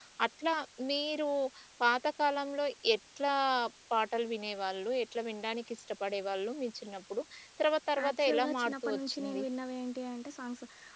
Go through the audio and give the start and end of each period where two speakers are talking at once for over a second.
8.0-9.4

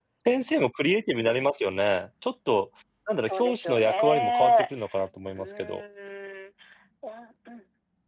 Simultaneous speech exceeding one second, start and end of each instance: 3.2-4.7

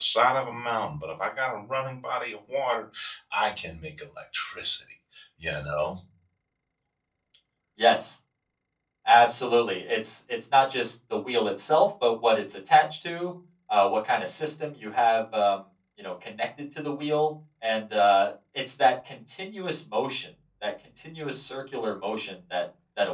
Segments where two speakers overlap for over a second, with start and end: none

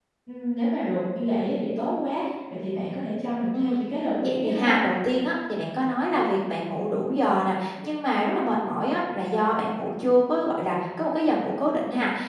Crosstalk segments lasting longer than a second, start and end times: none

